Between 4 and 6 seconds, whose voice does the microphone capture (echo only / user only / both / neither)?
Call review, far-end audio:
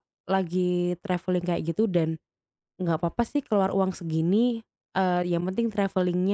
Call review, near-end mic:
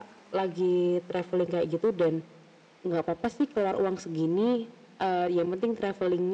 echo only